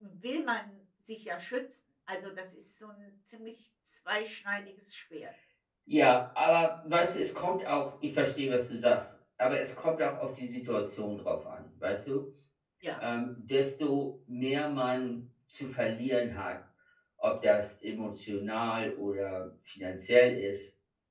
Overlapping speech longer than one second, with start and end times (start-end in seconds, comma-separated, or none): none